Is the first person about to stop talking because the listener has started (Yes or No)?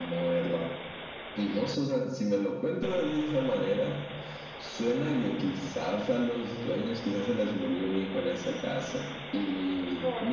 No